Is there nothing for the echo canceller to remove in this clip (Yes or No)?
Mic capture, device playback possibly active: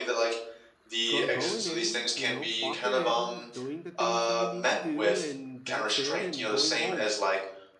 No